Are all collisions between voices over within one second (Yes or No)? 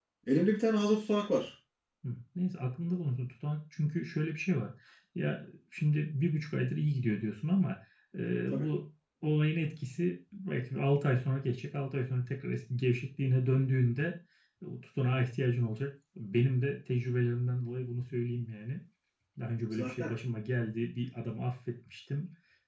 Yes